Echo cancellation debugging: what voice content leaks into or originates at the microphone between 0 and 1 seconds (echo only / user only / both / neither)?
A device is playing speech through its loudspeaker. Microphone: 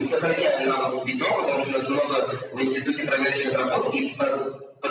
echo only